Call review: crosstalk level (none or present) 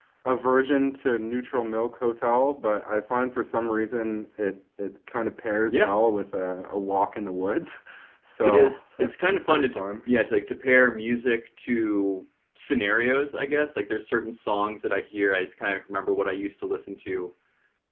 present